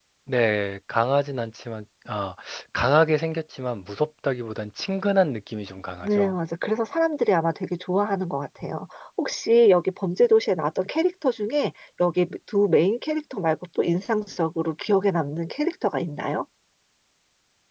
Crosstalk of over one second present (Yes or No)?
No